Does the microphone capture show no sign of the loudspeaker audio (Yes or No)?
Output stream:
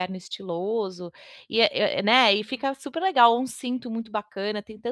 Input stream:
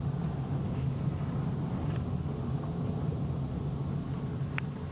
Yes